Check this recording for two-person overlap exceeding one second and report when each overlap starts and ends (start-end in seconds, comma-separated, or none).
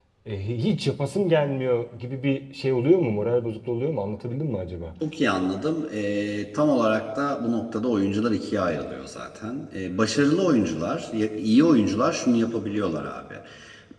none